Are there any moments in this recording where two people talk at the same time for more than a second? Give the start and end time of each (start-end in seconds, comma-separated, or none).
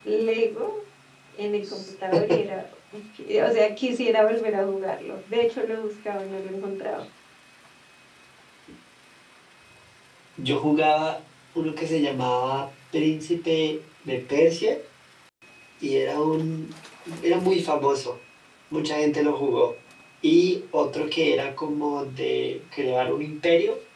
none